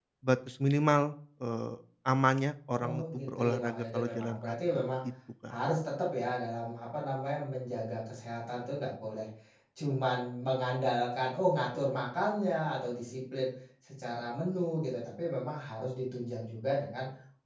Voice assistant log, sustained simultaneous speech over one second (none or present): present